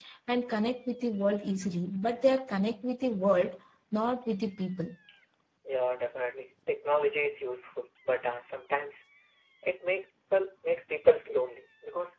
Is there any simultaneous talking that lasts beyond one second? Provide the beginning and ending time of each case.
none

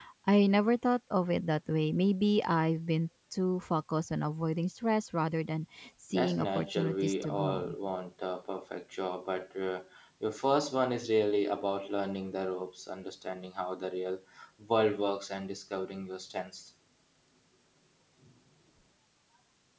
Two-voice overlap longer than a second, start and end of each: 6.1-7.8

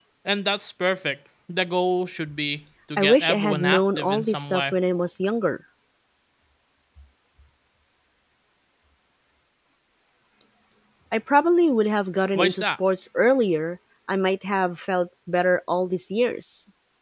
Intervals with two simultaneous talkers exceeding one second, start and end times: 3.0-4.7

